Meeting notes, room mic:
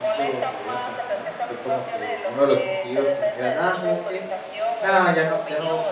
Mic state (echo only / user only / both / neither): both